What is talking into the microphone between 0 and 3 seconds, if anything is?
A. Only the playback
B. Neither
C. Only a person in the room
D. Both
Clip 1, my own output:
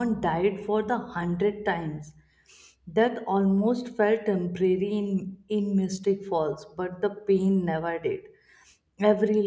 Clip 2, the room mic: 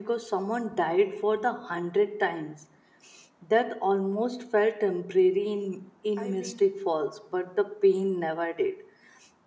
A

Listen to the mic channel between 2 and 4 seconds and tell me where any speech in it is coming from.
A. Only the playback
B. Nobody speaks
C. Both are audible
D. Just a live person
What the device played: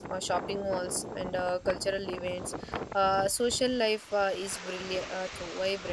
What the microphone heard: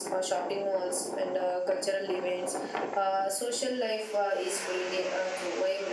A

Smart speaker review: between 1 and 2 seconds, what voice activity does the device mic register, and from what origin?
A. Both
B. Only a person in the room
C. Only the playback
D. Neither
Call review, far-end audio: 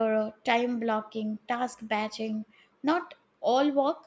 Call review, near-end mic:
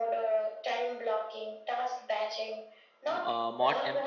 C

